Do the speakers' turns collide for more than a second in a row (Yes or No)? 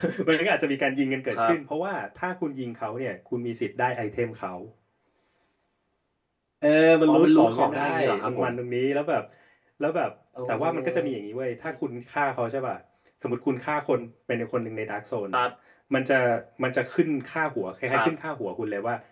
Yes